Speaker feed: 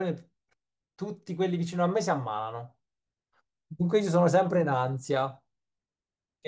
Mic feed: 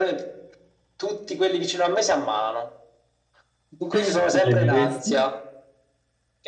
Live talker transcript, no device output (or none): Tu viaggeresti,